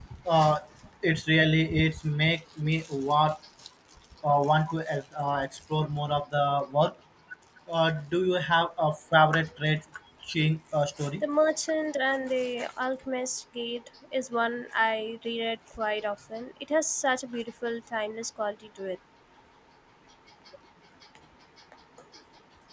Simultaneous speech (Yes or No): No